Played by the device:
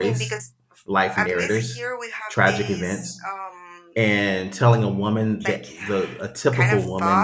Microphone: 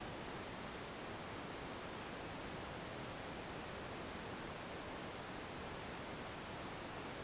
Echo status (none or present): none